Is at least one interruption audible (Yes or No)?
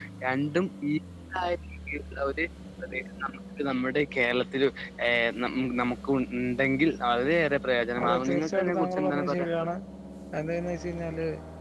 Yes